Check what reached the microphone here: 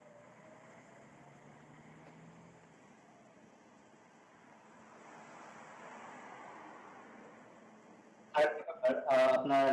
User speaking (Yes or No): Yes